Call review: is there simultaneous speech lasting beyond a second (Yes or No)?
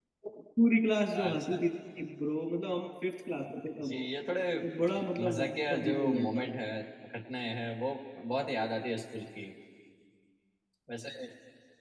Yes